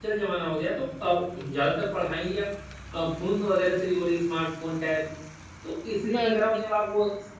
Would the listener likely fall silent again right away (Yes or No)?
Yes